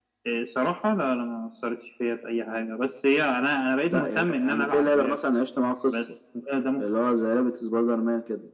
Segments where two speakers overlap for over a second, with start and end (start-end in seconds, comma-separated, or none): 3.9-5.2